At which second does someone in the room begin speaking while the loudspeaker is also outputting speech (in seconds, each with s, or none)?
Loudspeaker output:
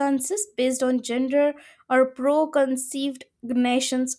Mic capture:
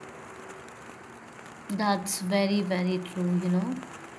1.7 s